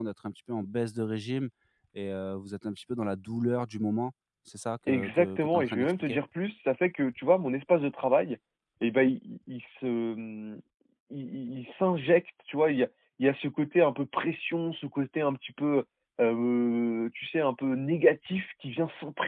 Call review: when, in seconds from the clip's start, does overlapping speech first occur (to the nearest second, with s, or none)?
5 s